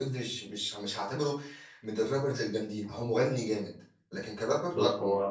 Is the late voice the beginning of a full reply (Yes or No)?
Yes